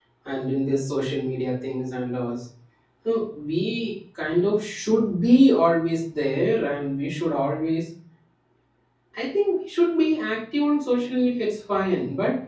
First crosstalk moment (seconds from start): none

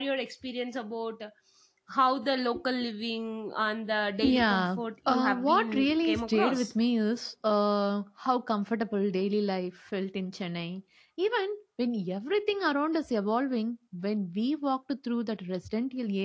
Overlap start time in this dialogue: 4.2 s

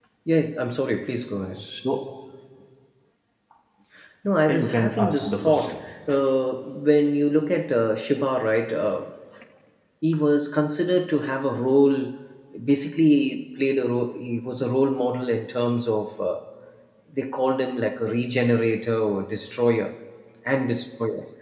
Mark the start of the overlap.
4.5 s

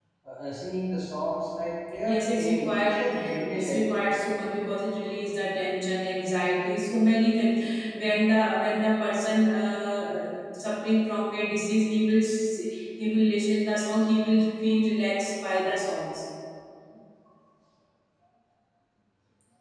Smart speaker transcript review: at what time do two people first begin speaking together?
2.0 s

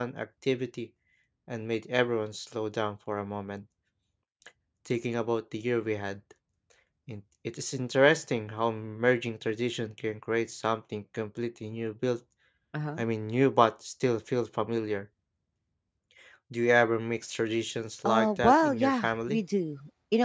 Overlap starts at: 18.0 s

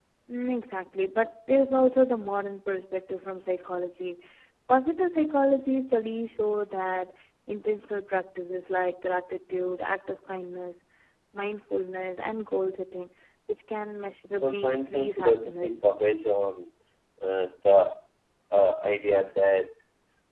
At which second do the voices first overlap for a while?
14.4 s

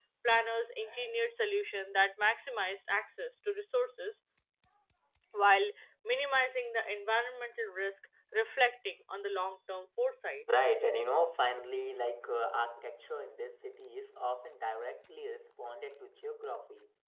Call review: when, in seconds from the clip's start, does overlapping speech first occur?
none

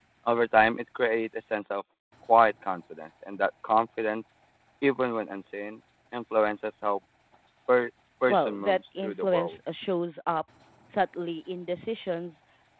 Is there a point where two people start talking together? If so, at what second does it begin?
8.3 s

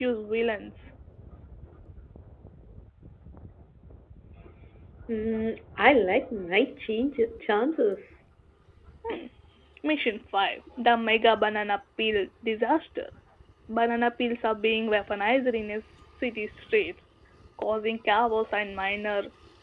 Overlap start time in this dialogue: none

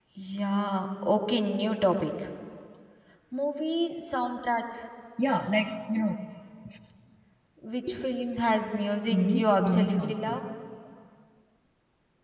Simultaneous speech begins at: 9.1 s

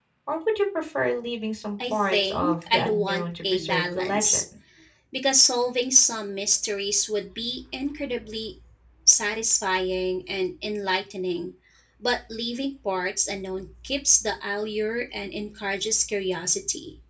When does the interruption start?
1.8 s

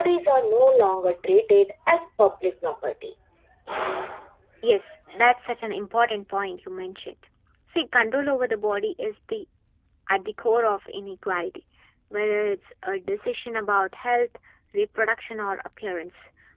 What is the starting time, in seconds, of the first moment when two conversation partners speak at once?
none

